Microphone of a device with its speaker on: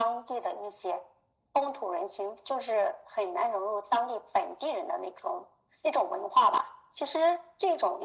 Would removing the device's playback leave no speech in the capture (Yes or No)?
Yes